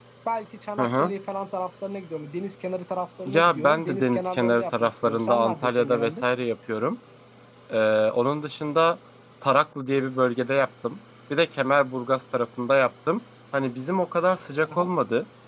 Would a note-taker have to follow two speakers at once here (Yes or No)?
Yes